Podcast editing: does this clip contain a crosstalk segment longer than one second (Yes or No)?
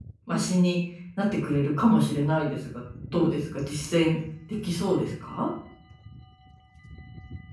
No